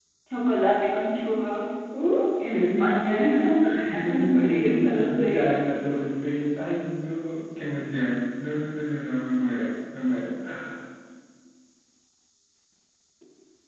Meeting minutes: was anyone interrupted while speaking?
Yes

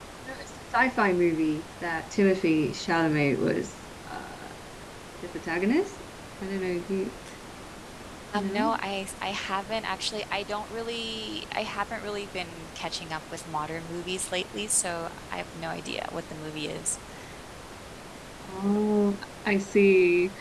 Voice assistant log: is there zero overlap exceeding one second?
Yes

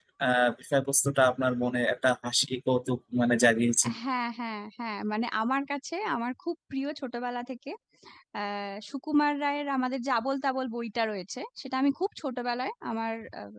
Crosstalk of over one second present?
No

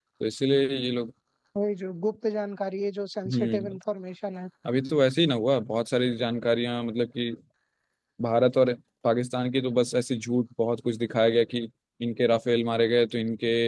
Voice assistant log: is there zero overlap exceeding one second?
Yes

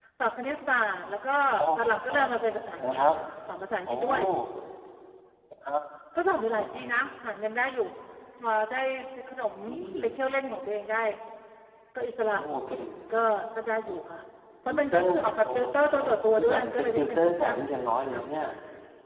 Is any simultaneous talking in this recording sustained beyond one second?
Yes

